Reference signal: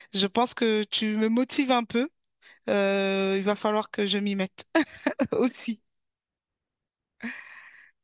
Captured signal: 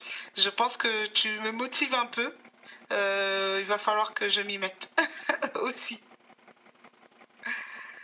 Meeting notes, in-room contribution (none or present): none